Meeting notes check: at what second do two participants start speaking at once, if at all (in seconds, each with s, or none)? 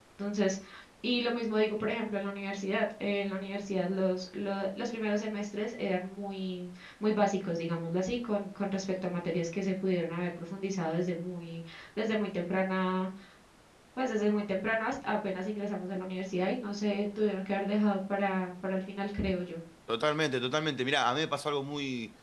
none